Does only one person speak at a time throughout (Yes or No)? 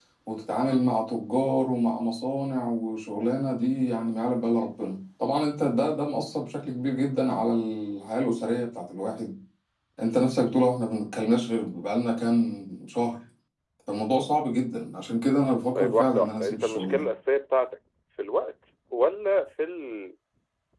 No